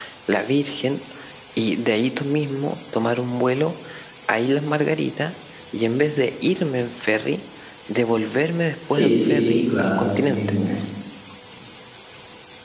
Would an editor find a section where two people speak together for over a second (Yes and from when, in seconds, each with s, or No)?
Yes, from 8.9 s